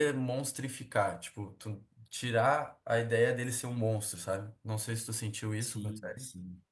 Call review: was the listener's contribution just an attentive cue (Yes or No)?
No